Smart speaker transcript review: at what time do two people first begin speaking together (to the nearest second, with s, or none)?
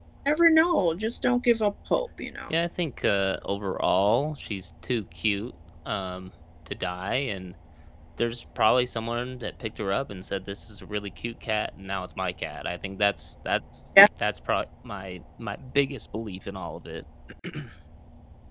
none